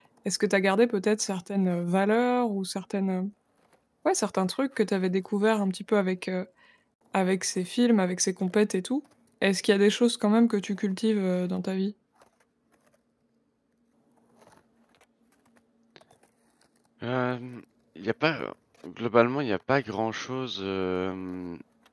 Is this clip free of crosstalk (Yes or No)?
Yes